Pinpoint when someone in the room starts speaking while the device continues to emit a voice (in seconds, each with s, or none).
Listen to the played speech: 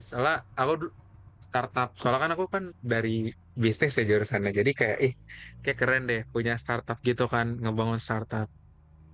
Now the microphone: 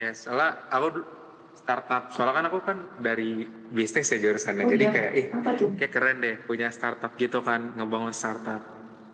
4.6 s